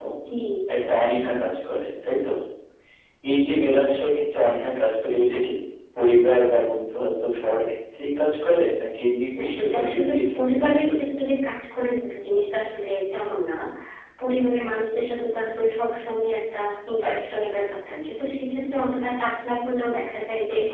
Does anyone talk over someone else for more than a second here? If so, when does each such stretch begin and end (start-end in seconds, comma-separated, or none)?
9.4-11.0